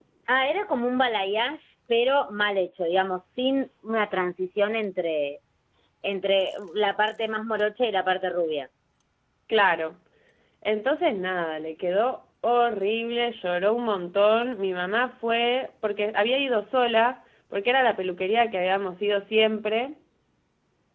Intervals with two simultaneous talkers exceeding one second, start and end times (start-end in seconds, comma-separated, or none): none